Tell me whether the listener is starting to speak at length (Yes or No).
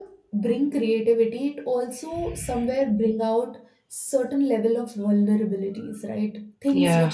No